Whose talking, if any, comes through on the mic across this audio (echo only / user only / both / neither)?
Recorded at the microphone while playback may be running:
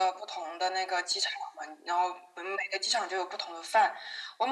echo only